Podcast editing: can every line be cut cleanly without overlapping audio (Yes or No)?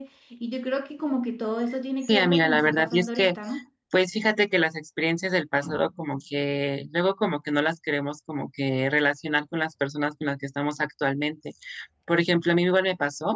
No